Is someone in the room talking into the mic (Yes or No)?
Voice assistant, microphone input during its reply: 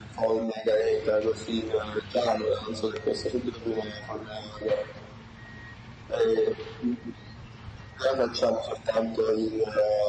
No